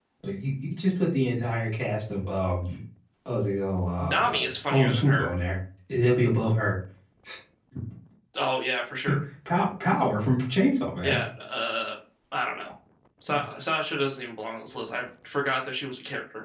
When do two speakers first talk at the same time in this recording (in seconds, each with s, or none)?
4.0 s